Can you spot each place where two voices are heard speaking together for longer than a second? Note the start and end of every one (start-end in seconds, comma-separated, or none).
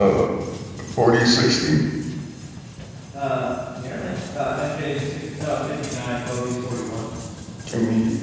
none